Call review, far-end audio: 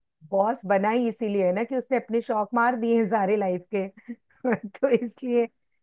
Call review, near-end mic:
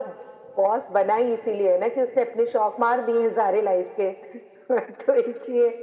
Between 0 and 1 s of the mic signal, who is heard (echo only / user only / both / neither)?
echo only